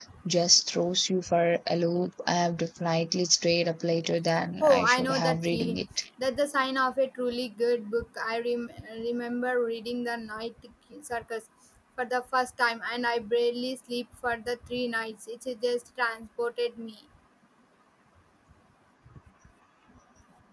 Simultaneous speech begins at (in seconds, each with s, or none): 4.6 s